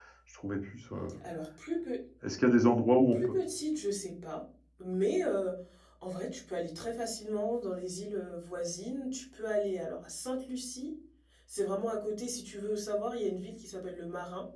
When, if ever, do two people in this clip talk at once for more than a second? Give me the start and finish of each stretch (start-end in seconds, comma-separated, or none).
none